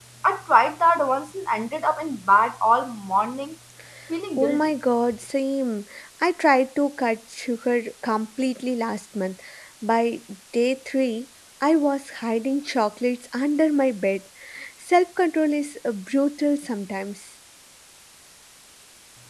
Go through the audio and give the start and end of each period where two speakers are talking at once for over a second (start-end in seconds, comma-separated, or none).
none